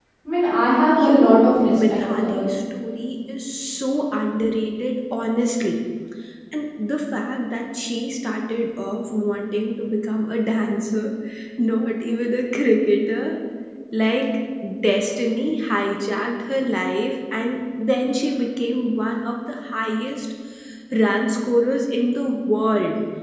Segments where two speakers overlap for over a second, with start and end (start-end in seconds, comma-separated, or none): 1.0-2.5